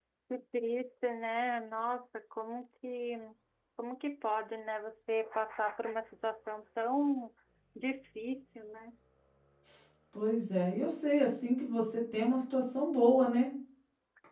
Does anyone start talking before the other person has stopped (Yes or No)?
No